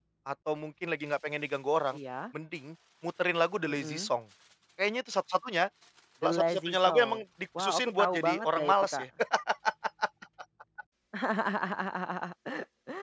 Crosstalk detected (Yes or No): Yes